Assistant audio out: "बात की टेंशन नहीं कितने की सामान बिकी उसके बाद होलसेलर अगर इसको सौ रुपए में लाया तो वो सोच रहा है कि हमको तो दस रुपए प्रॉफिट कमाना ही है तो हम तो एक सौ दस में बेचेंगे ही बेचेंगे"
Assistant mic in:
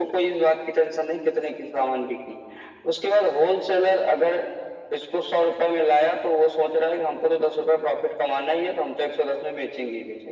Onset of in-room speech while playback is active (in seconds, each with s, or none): none